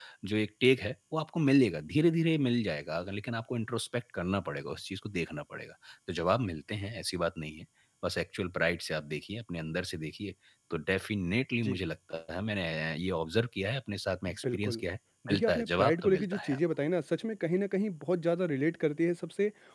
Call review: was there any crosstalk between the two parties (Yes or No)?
Yes